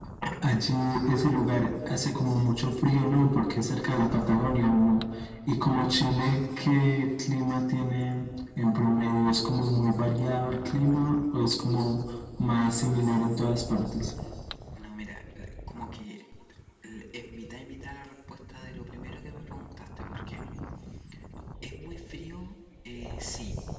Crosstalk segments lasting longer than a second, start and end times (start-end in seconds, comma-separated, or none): none